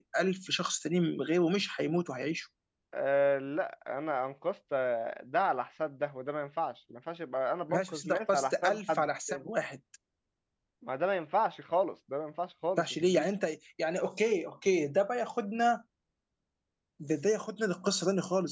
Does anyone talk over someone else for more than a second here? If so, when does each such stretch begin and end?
7.7-9.4

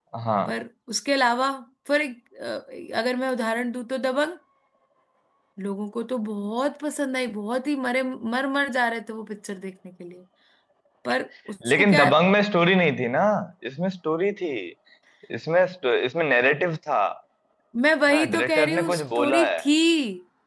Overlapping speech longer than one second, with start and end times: 18.0-19.6

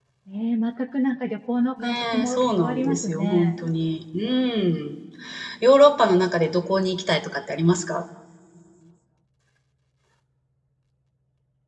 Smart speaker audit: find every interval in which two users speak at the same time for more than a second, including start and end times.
1.8-3.6

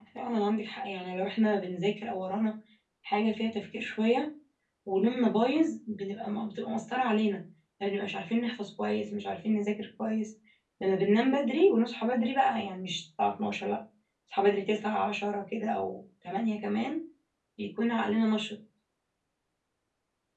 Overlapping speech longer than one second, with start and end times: none

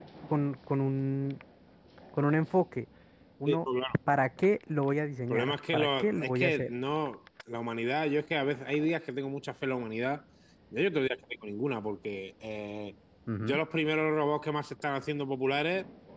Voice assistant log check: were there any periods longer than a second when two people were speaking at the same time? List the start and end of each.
5.3-6.7

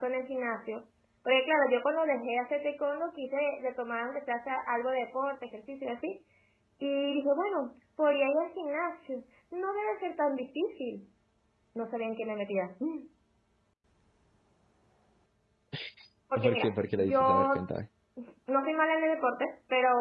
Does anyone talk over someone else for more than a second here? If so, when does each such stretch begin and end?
16.4-17.7

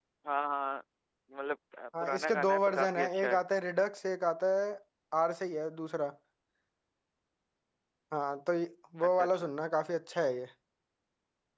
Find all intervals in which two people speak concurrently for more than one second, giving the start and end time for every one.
2.0-3.4

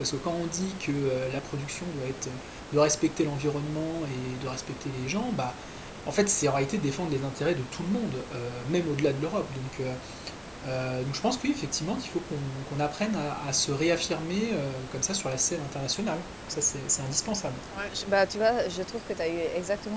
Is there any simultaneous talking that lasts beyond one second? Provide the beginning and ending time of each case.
none

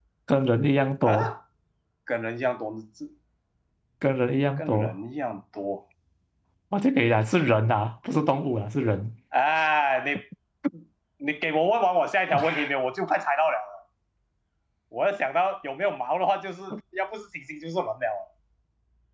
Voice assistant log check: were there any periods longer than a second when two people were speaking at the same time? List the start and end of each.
none

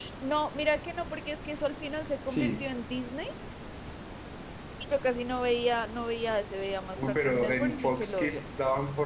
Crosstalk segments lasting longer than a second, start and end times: 7.0-8.4

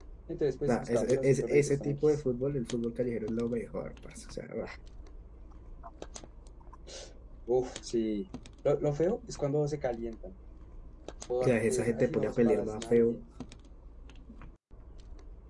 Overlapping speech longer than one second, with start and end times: 0.7-2.2, 11.4-13.2

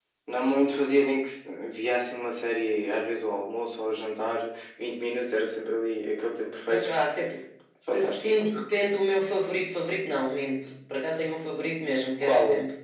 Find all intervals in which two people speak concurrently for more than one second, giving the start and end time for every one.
none

